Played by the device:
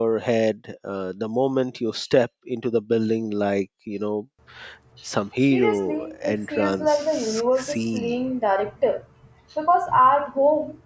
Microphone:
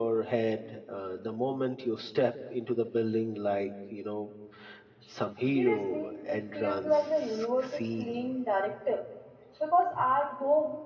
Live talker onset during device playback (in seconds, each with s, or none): none